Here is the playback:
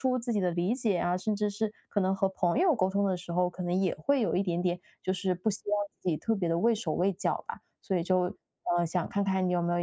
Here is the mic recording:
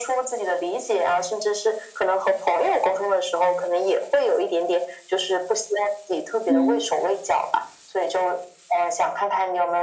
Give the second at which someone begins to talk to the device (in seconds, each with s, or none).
6.5 s